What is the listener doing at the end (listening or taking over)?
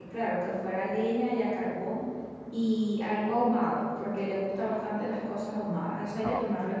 taking over